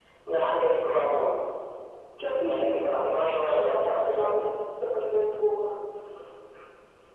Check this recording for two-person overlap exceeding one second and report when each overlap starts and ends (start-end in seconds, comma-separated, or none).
2.4-4.4